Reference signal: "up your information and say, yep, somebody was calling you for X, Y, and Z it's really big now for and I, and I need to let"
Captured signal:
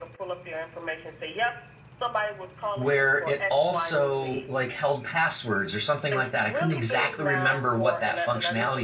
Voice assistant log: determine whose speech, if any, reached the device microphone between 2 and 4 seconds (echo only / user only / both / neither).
both